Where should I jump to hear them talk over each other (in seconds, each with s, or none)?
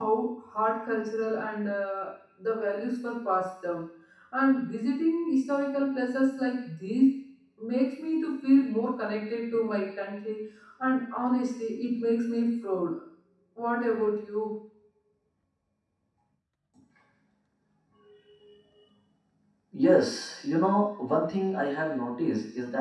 none